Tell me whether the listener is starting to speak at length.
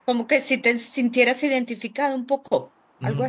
Yes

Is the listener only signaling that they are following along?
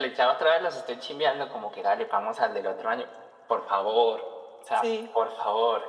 Yes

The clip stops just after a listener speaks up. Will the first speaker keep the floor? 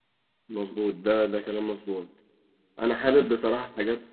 Yes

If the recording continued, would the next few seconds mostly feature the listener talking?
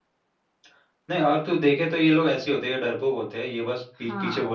No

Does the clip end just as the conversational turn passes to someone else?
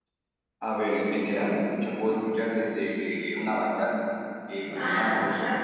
Yes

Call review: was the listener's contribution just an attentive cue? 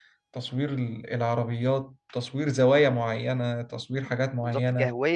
No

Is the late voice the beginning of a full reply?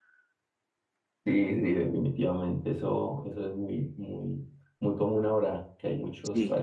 No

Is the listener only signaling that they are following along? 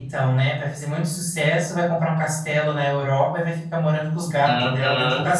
No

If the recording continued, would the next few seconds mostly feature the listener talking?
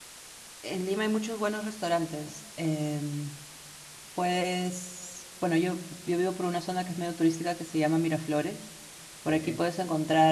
No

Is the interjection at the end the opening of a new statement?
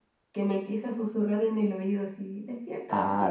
Yes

